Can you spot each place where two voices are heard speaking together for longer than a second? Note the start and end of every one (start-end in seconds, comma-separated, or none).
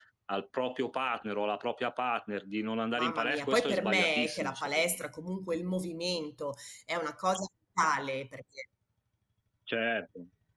3.0-4.9